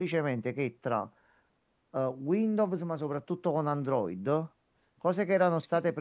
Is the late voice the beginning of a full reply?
No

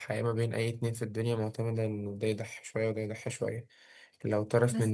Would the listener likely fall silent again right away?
Yes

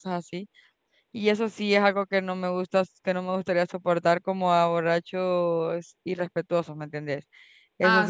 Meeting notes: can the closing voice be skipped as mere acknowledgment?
No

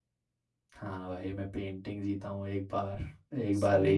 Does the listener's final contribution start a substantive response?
No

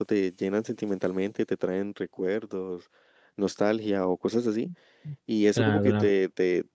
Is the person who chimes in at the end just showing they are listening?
Yes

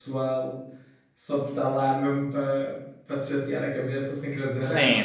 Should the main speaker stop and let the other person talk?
Yes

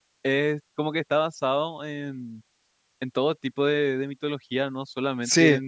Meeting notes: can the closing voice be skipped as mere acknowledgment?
Yes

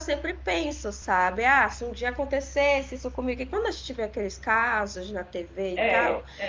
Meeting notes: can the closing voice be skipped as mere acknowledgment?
Yes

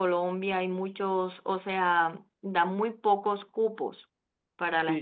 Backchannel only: No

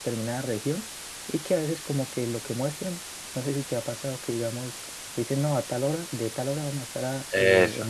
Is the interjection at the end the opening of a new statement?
No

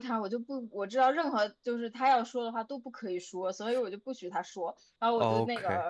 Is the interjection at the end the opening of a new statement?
No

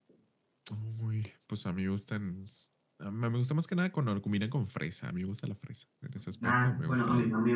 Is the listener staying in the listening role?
No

